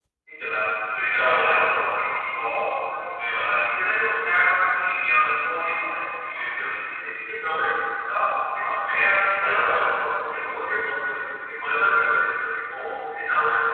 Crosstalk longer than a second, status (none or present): none